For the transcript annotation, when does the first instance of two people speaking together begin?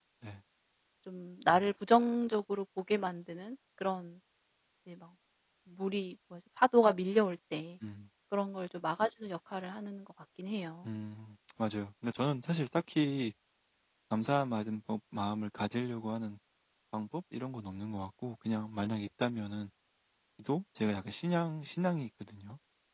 none

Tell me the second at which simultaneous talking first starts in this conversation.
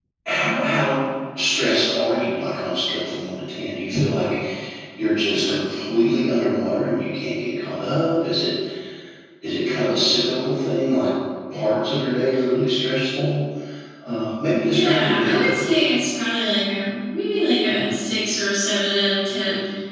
14.7 s

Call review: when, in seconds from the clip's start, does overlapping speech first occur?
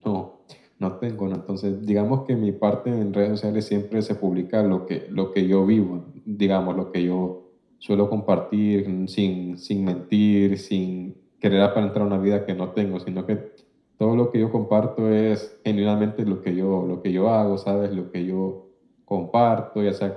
none

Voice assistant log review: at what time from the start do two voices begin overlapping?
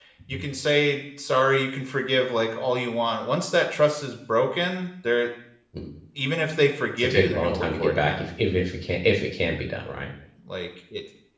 7.0 s

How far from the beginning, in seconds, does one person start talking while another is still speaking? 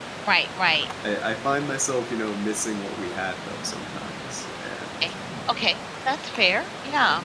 none

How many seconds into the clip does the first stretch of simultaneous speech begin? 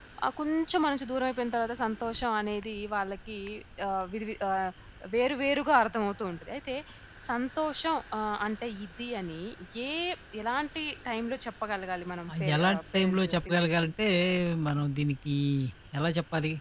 12.3 s

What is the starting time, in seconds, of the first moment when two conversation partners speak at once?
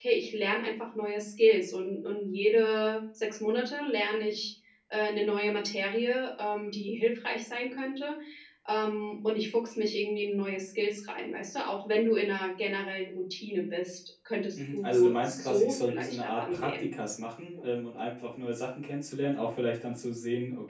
14.6 s

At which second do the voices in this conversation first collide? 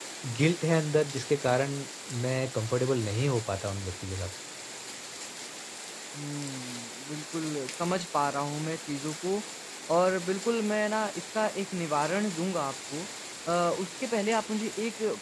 none

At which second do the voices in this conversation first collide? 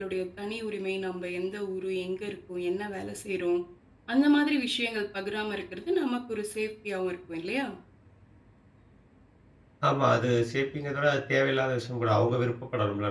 none

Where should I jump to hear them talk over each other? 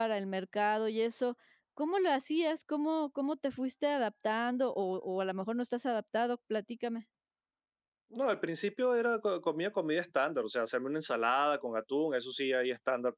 none

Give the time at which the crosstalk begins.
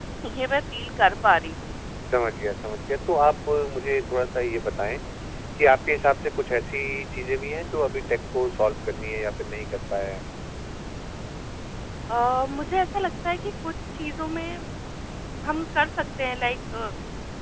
none

